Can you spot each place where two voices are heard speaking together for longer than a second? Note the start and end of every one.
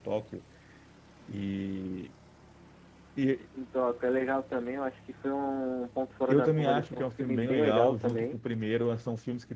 6.3-8.4

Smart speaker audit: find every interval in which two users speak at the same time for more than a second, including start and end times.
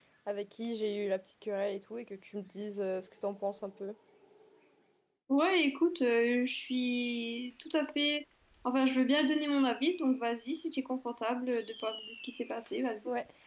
none

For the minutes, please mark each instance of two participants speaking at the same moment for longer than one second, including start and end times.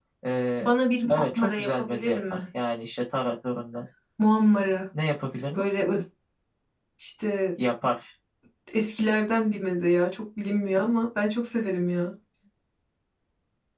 1.1-2.4

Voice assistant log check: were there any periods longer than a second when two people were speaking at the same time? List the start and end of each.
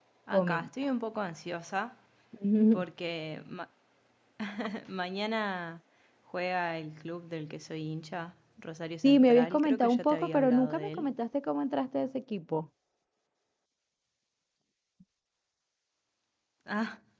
9.0-11.1

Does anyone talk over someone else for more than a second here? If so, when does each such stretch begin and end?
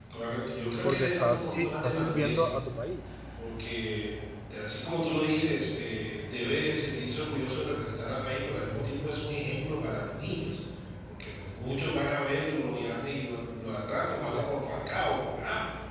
0.8-2.5

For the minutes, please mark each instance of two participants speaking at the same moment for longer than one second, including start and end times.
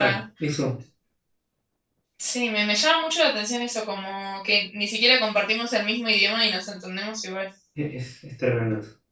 none

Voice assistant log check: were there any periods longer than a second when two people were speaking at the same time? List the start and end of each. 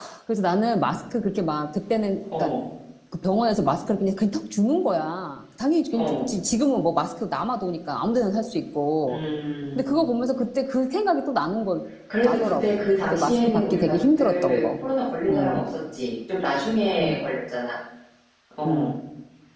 12.2-14.7

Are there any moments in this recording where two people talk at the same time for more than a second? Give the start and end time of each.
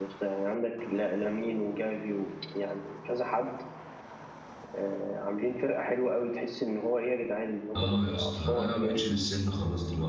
7.8-9.1

